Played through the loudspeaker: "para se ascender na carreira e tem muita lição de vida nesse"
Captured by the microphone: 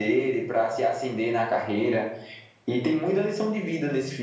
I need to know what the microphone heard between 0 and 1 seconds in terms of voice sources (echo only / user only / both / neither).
echo only